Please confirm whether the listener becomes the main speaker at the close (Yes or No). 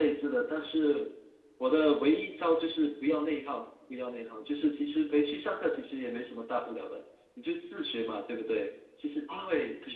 No